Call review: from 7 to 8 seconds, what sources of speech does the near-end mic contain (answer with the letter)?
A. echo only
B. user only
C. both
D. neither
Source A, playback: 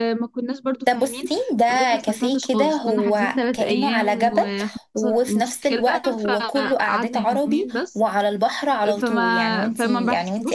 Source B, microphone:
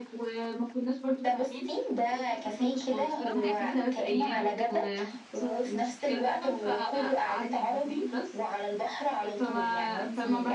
A